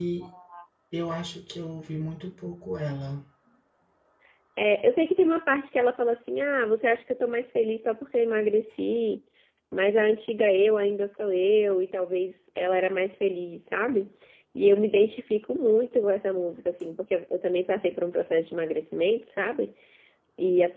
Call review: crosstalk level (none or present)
none